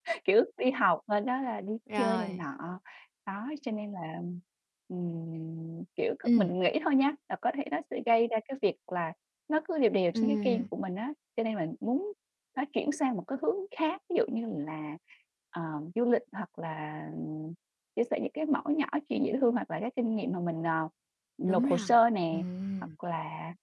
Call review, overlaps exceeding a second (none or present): none